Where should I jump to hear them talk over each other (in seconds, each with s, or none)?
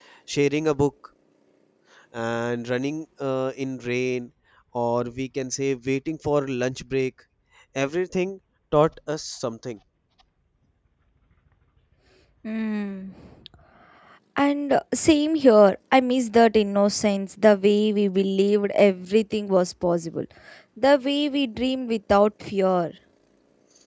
none